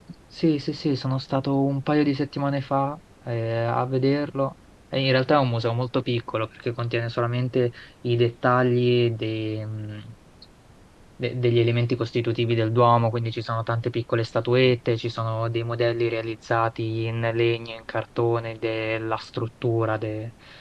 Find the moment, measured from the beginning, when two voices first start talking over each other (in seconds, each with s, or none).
none